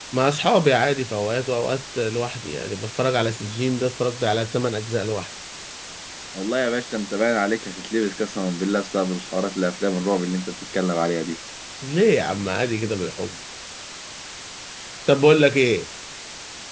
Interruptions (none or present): none